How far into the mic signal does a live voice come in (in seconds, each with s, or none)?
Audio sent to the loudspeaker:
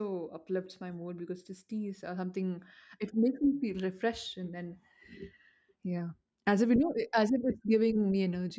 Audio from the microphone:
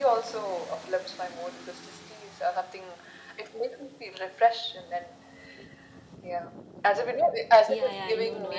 7.6 s